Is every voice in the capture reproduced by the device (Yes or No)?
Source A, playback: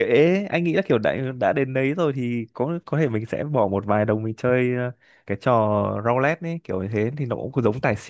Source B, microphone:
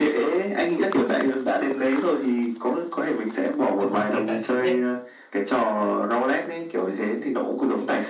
No